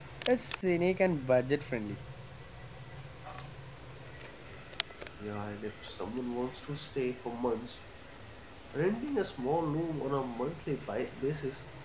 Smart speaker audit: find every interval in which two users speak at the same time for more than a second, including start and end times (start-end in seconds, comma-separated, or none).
none